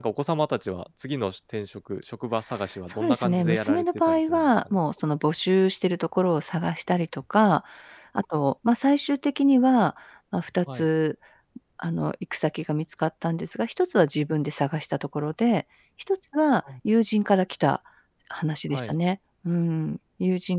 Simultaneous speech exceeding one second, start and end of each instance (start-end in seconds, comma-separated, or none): 3.0-4.8